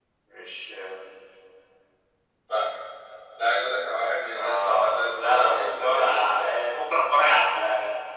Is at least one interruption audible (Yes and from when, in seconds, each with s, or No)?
Yes, from 4.3 s